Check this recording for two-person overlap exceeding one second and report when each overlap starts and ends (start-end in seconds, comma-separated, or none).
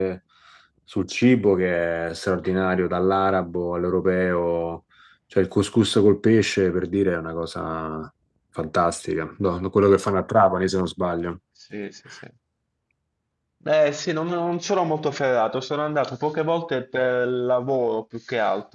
none